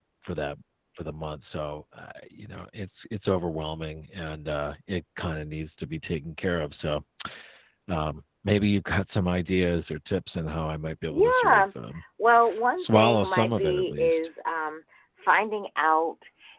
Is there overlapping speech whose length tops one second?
Yes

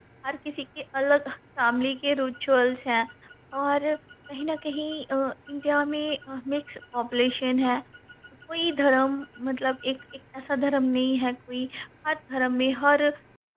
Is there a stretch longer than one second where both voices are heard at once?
No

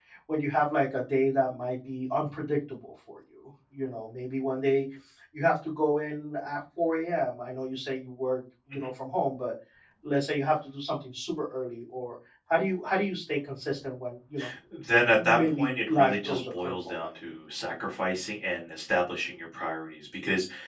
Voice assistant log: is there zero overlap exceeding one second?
No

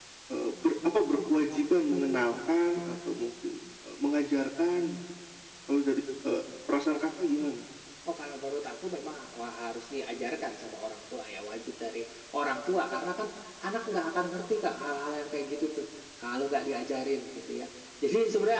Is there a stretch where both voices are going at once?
No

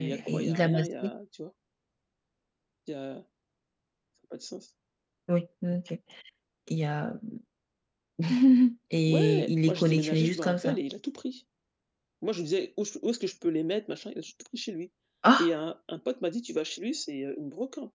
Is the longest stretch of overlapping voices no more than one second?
No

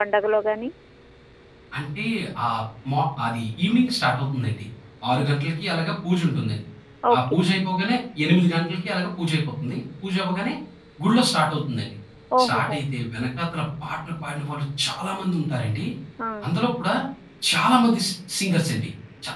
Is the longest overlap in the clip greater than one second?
No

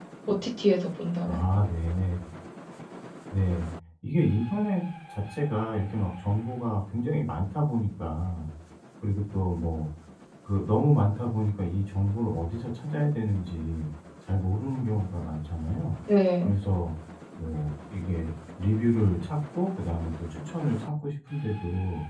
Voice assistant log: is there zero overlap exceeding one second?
Yes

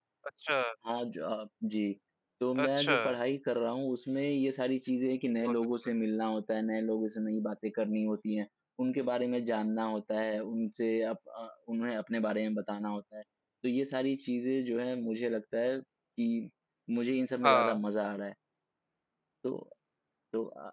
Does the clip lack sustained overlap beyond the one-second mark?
Yes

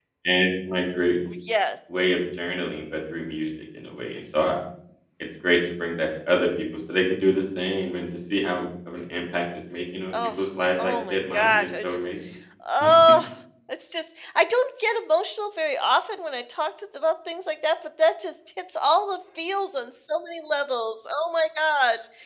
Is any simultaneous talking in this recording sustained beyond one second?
Yes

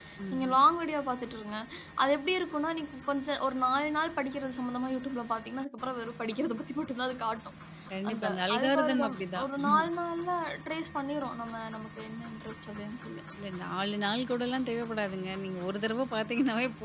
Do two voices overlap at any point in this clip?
Yes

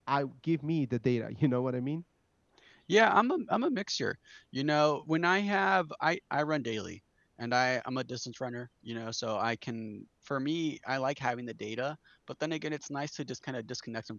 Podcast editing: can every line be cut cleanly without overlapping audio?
Yes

